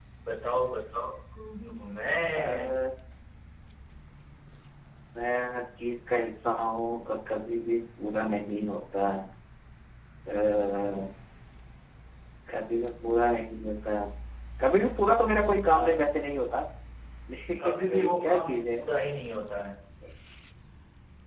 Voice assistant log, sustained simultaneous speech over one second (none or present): present